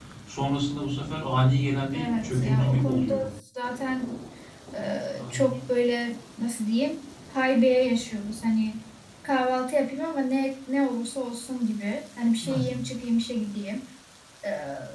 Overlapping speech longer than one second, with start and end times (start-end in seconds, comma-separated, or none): 1.9-3.1